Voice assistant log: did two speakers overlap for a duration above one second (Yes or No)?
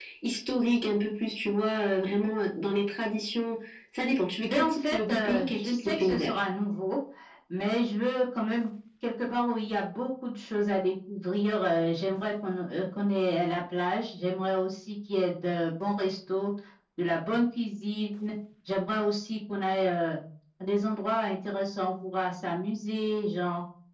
Yes